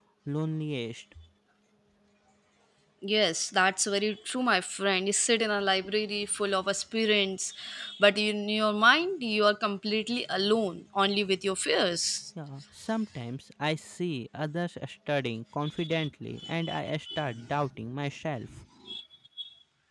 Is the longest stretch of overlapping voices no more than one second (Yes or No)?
Yes